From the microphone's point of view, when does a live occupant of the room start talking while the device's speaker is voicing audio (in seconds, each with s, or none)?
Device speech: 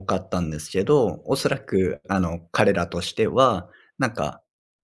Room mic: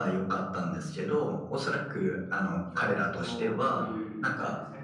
2.6 s